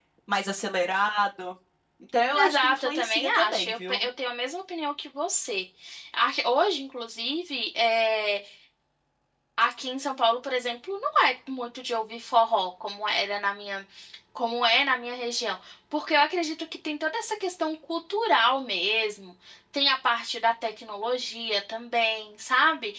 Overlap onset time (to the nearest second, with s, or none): 2 s